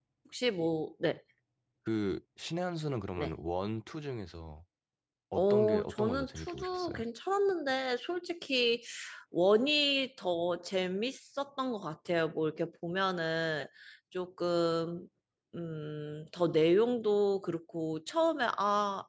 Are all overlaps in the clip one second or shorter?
No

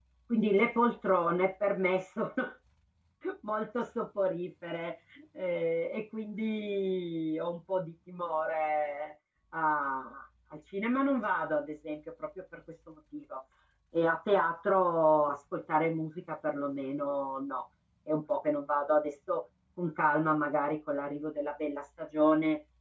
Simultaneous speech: No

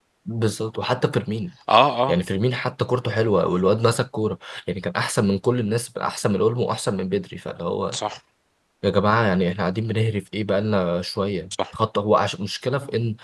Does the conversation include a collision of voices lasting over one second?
No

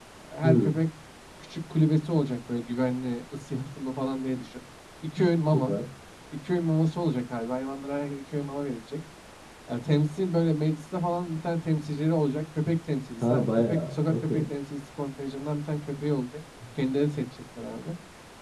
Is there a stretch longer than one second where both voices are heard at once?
Yes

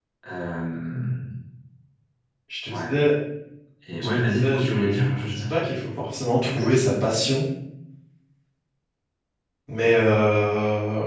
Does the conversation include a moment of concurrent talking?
Yes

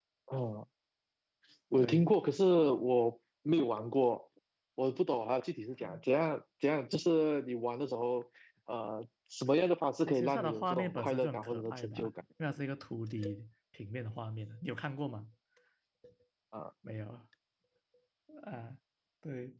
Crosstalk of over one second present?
Yes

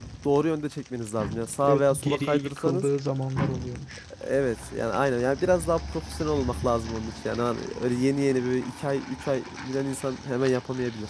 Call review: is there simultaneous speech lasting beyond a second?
Yes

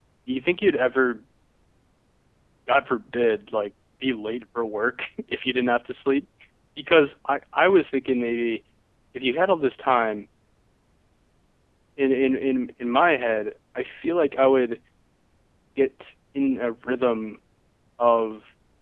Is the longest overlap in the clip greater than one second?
No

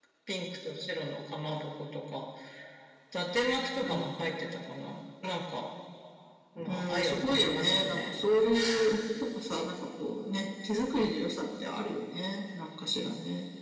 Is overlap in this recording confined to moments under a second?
No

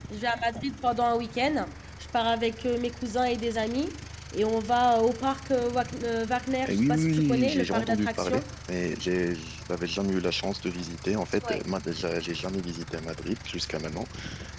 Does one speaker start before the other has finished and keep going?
Yes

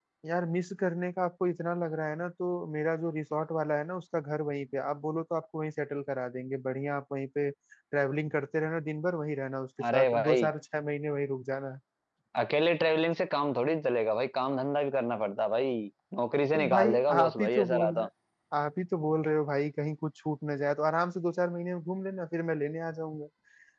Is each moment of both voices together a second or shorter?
No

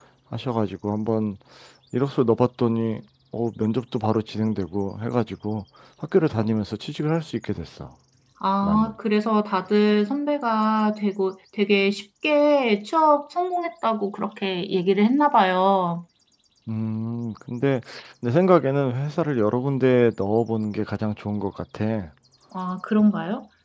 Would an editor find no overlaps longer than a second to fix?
Yes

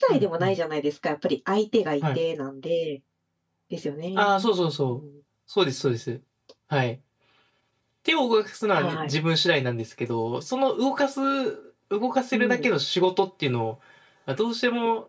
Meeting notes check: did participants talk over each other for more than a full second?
No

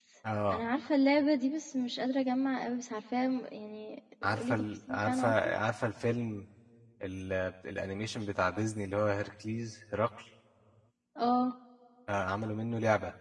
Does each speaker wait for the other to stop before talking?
No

